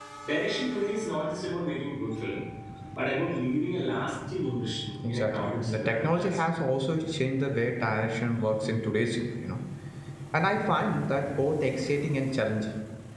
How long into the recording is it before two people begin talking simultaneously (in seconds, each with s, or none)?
5.0 s